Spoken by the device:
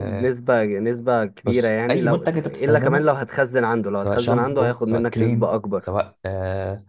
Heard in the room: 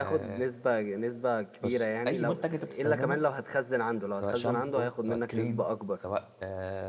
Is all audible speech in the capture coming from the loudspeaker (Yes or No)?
Yes